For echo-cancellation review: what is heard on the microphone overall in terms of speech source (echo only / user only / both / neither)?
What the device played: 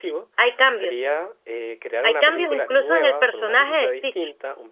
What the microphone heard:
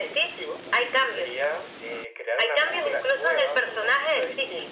echo only